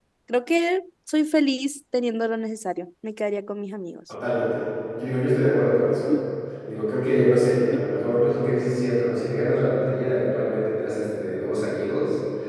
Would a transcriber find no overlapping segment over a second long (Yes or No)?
Yes